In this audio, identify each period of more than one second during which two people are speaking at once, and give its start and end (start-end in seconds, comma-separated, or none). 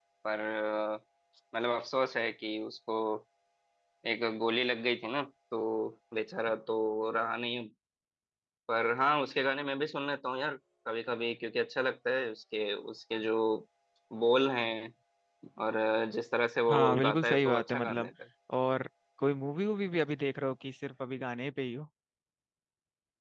16.7-18.1